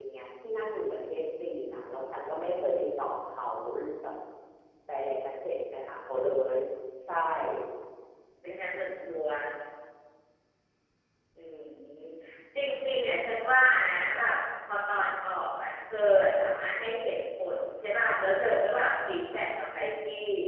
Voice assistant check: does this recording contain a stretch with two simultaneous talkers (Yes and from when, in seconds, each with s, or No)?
No